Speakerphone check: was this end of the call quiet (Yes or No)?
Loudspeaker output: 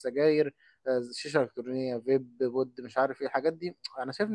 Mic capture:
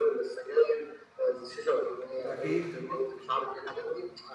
No